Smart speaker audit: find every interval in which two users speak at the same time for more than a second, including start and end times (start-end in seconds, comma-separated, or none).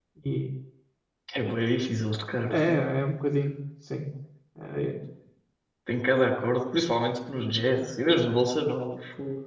none